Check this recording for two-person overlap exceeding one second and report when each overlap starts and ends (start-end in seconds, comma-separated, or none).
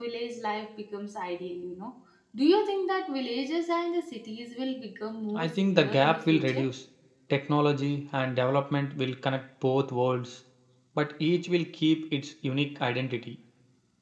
5.3-6.6